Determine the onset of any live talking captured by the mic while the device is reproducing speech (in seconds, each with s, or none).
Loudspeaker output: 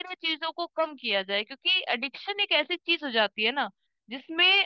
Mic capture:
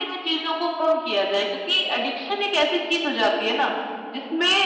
none